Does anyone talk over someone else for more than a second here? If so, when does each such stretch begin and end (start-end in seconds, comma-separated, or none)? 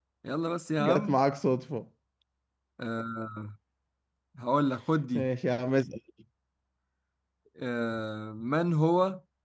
none